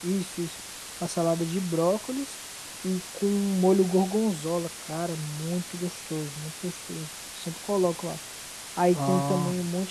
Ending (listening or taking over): listening